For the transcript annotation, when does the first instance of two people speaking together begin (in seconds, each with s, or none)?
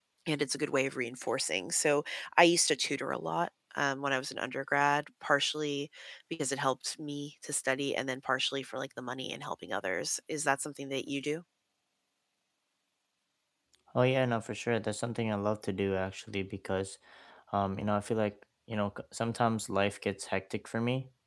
none